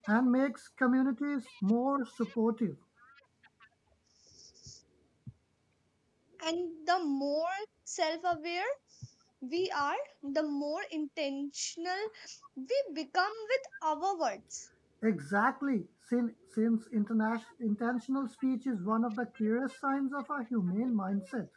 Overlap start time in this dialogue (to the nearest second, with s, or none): none